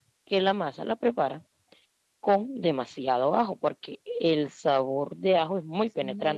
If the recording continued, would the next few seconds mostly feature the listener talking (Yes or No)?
Yes